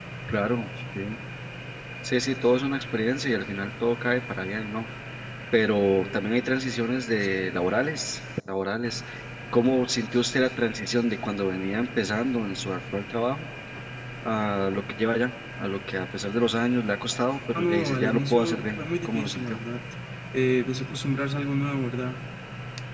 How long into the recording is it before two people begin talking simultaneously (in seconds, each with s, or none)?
17.5 s